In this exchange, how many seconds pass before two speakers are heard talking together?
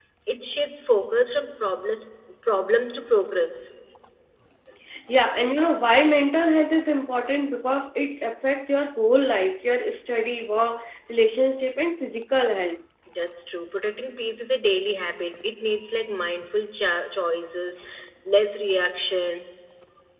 none

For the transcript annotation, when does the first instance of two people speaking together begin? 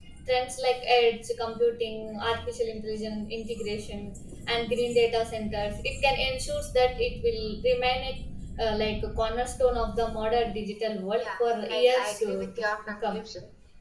11 s

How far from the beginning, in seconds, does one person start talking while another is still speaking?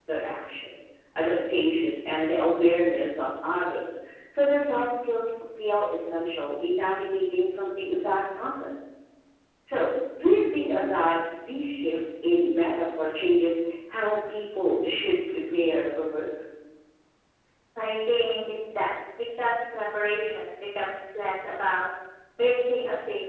none

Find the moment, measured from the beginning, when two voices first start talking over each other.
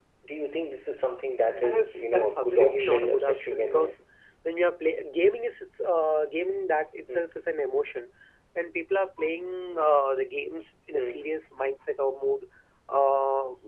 2 s

